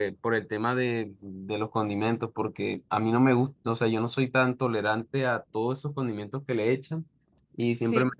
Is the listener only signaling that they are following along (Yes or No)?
Yes